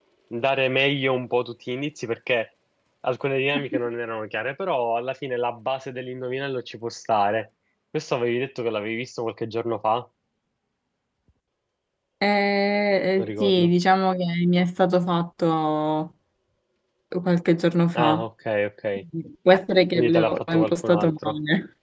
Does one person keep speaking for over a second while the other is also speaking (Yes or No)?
Yes